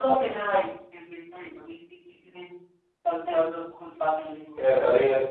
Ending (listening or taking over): taking over